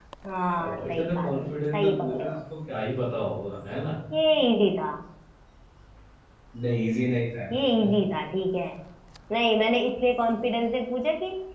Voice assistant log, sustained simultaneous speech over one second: present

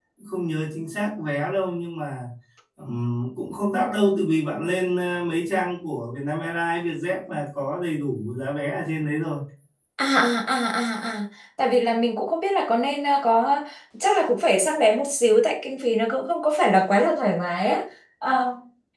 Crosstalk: none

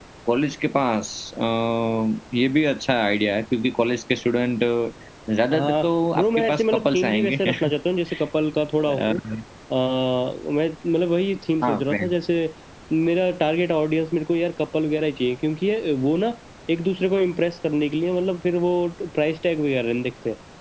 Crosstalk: present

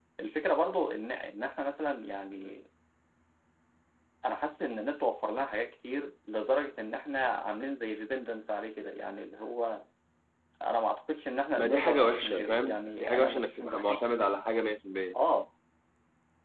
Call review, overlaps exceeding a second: present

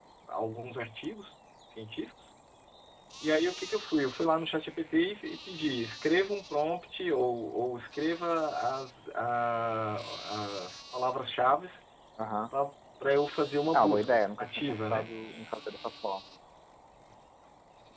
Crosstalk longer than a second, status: present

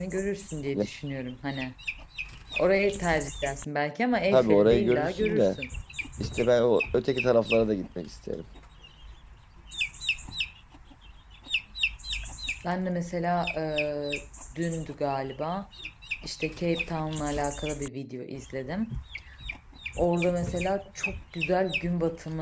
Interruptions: present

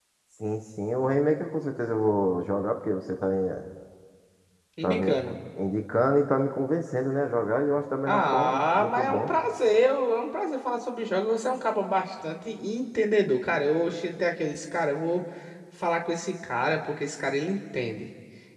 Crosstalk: present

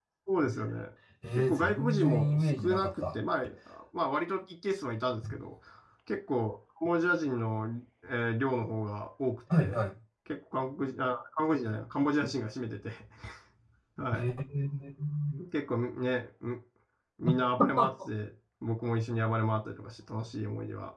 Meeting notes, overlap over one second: present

